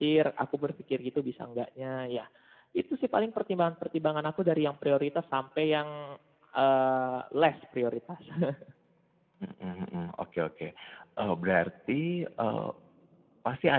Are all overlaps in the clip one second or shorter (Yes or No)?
Yes